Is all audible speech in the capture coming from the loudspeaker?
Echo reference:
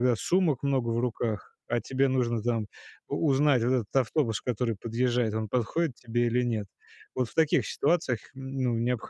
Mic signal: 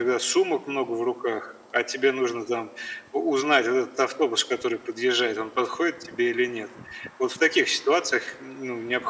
Yes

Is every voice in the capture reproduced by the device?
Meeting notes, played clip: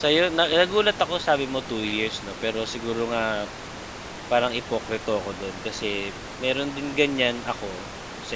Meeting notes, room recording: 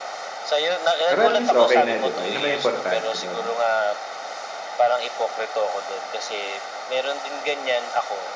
No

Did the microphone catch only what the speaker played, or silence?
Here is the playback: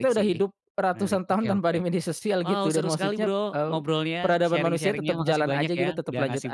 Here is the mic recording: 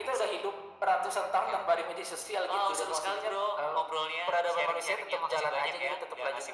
Yes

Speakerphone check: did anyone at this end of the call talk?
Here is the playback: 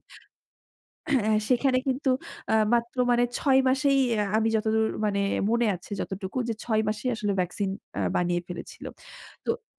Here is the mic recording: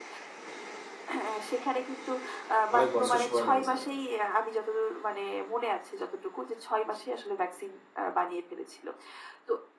Yes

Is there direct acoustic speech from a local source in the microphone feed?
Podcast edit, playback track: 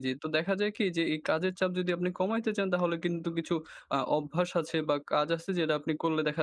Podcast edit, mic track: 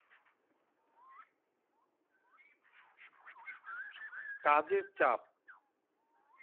Yes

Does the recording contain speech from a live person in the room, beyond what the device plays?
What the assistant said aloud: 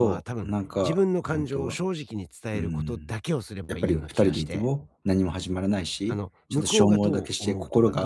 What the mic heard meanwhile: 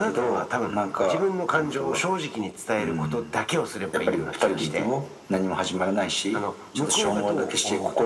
No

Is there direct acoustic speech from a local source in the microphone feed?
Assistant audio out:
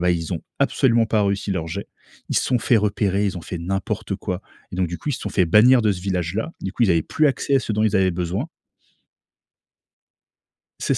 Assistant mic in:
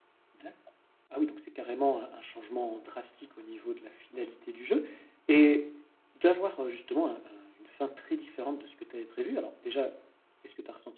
Yes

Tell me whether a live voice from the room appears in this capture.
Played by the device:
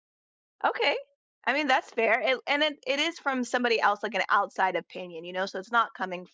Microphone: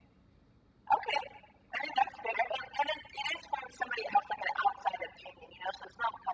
No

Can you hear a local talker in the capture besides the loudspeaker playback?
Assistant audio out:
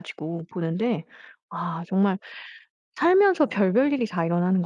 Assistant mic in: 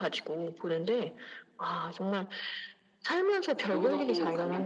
Yes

